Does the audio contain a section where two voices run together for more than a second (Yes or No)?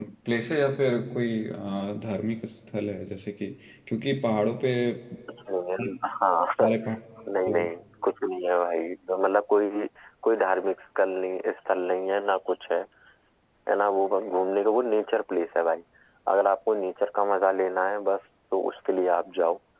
No